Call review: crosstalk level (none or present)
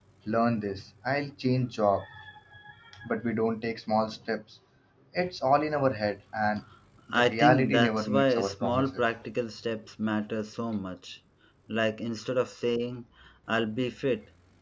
present